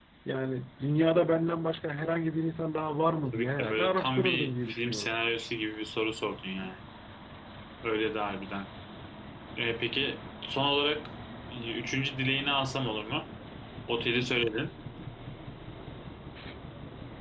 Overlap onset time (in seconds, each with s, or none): 3.3 s